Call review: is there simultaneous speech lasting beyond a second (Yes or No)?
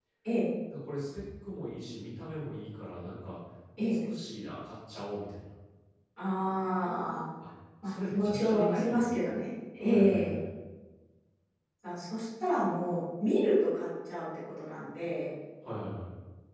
Yes